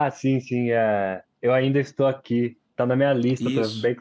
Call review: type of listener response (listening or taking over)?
listening